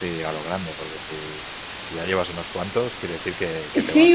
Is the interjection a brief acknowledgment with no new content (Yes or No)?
No